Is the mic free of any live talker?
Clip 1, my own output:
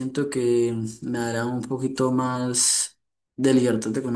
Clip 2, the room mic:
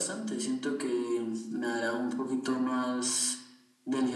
Yes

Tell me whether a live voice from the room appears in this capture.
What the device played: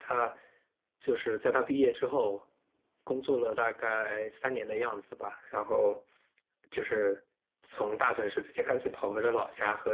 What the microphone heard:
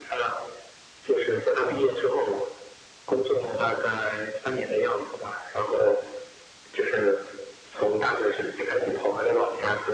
No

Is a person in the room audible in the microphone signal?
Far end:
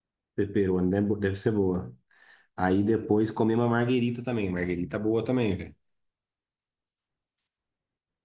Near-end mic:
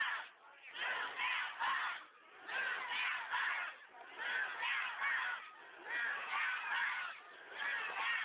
No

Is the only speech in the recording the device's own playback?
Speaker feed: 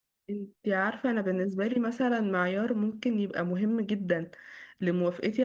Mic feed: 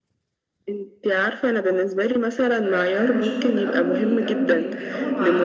No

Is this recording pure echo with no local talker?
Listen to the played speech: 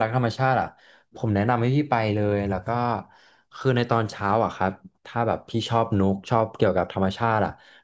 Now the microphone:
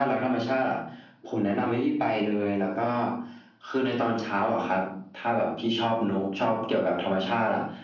Yes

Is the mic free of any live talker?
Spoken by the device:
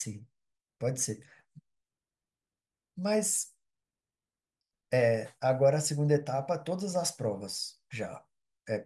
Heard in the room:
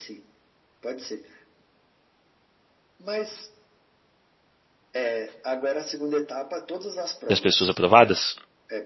No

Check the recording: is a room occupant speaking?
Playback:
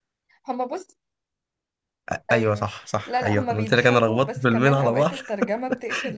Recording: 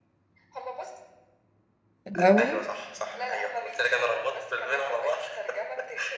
Yes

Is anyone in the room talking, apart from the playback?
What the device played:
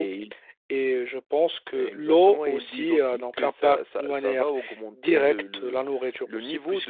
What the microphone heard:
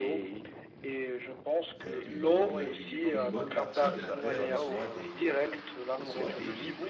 Yes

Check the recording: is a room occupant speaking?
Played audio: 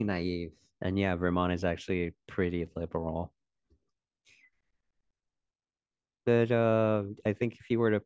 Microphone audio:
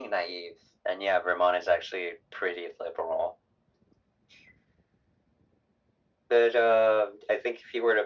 No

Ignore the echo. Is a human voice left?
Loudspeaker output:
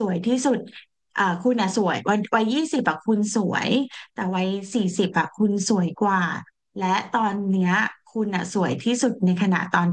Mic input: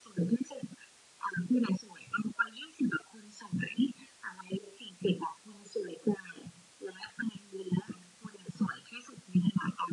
No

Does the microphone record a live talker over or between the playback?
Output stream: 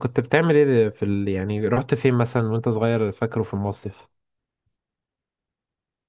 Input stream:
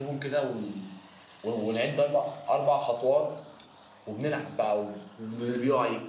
Yes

